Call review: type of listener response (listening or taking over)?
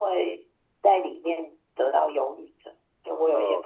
taking over